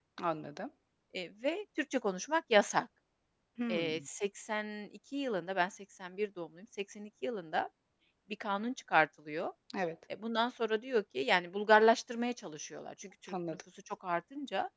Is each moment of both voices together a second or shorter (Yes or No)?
Yes